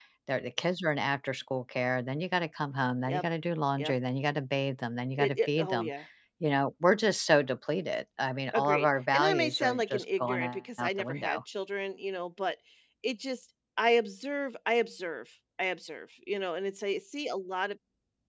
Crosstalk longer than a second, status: present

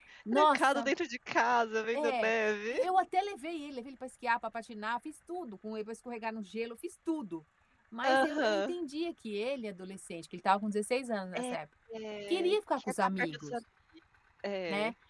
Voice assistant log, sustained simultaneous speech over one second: present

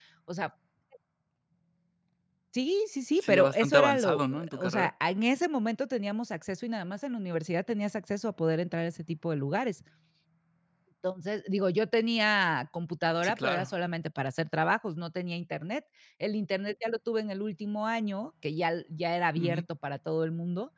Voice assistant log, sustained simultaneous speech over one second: present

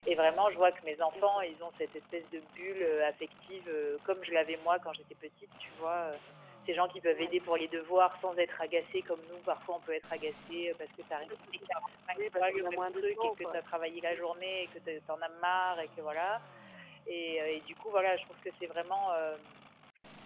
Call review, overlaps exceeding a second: present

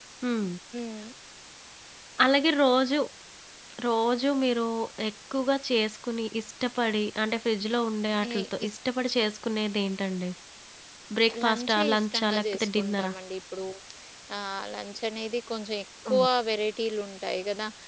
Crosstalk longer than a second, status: present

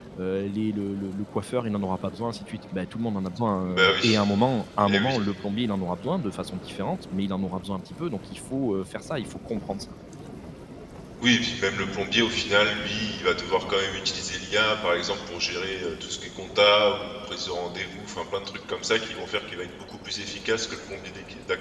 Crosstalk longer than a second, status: none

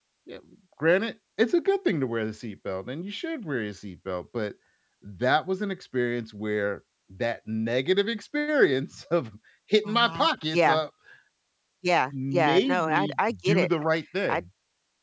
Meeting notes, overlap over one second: present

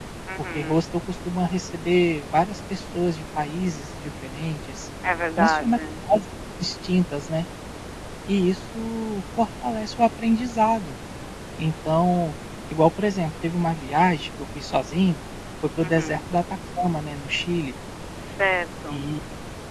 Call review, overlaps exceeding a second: none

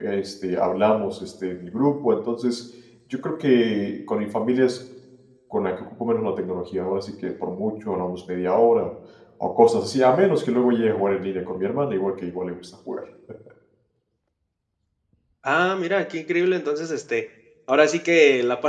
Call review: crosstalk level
none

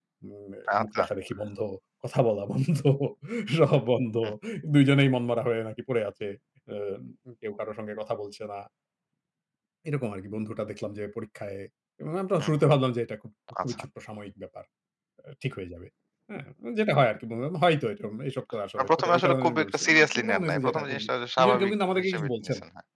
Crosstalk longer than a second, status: present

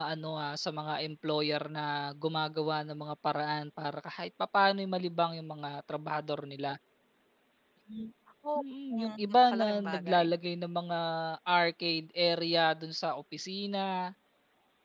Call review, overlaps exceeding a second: present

